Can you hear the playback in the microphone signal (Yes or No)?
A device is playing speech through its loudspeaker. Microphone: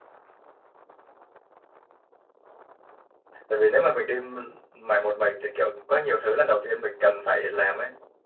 No